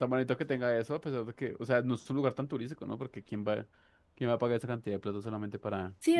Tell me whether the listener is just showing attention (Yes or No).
No